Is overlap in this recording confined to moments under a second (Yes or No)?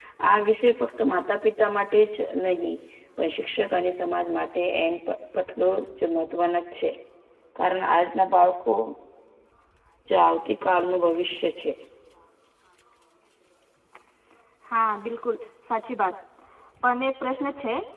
Yes